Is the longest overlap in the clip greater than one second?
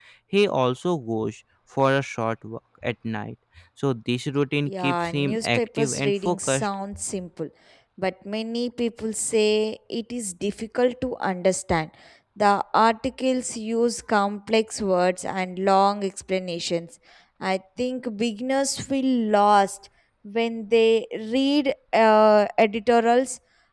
Yes, from 4.7 s

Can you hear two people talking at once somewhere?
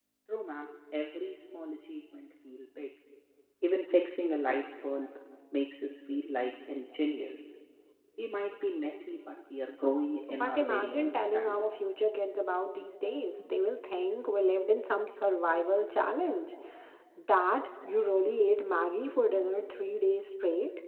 Yes, from 10.3 s

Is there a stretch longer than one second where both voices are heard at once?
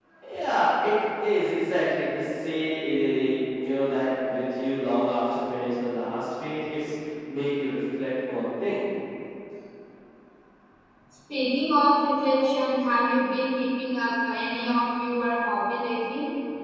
No

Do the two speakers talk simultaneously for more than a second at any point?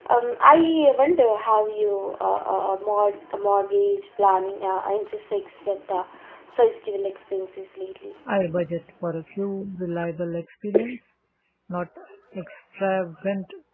No

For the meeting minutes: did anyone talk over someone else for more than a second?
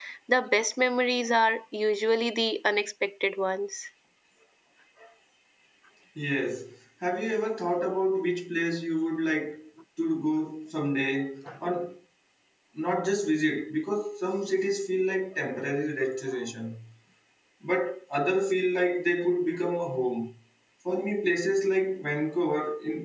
No

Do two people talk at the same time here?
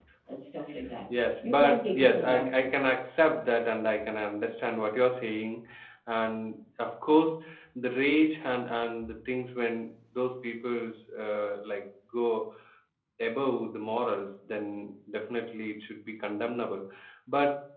Yes, from 1.2 s

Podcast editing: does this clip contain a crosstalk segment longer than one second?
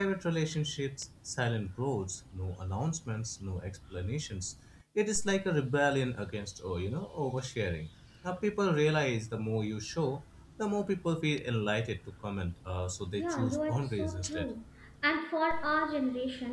Yes, from 13.2 s

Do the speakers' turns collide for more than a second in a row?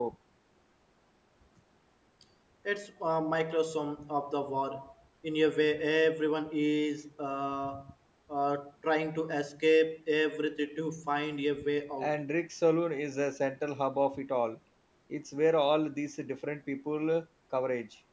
No

